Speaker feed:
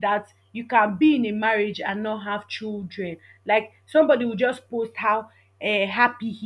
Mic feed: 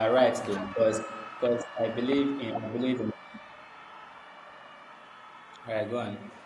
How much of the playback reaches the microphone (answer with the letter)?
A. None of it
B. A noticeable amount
A